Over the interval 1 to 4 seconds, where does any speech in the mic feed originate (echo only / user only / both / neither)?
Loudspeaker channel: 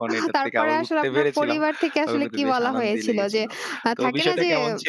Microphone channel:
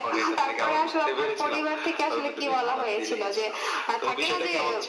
echo only